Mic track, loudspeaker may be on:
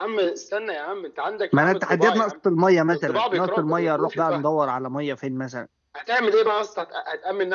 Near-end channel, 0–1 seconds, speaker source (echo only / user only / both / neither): echo only